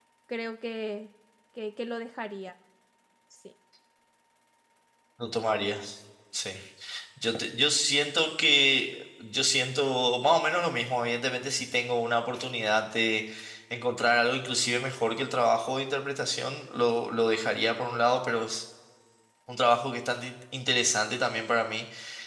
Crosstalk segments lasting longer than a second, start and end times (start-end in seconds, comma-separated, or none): none